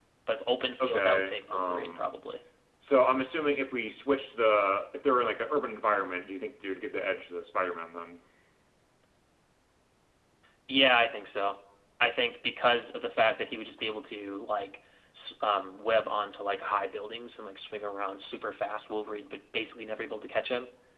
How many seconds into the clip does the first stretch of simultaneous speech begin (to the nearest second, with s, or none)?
1 s